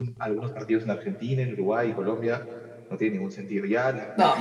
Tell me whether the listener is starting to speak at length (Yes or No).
No